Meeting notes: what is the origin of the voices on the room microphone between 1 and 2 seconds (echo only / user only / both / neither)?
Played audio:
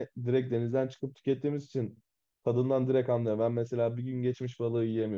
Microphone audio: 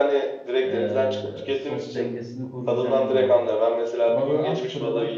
both